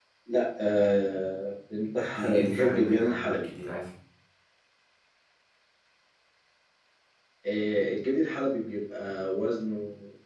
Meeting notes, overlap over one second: present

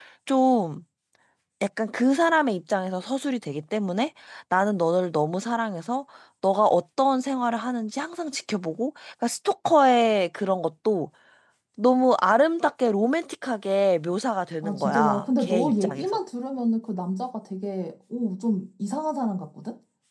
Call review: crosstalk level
present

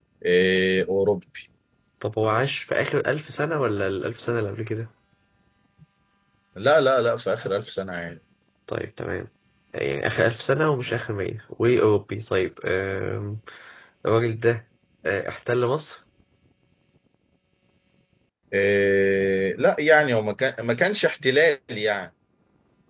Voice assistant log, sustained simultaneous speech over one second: none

